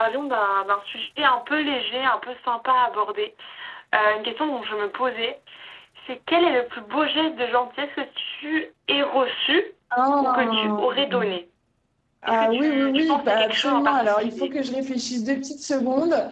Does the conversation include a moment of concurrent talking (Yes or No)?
Yes